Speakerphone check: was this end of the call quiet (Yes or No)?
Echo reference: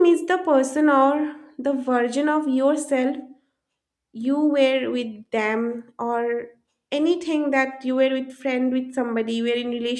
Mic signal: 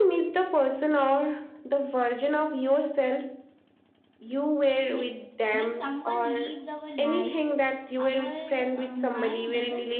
No